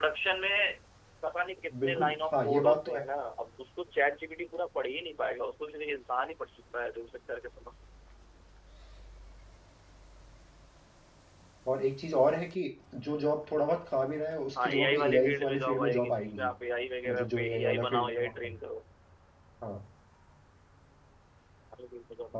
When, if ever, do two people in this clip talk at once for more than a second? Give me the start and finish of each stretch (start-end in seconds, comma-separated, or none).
1.8-3.0, 14.6-16.5, 17.1-18.6